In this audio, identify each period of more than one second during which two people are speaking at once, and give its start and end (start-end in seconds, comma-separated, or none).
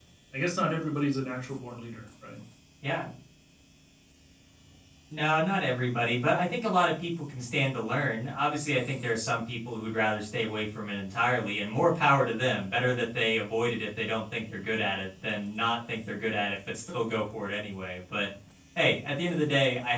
none